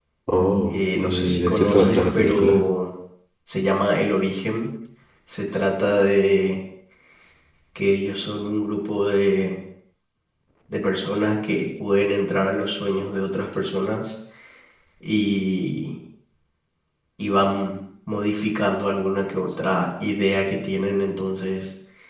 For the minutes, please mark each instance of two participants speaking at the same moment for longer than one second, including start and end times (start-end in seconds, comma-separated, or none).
0.7-2.5